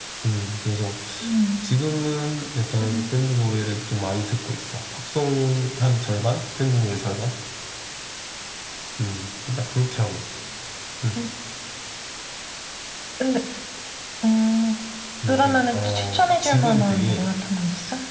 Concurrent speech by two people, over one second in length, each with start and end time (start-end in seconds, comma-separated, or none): 15.3-17.2